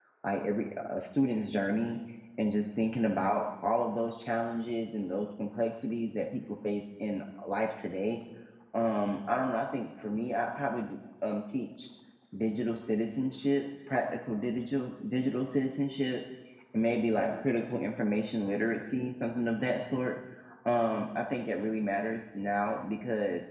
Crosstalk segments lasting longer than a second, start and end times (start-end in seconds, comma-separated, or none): none